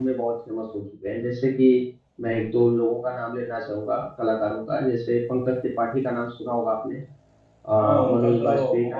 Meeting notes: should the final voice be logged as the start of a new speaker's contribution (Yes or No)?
Yes